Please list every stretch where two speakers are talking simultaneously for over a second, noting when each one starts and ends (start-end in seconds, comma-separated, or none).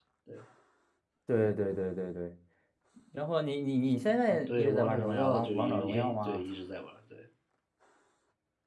4.3-6.4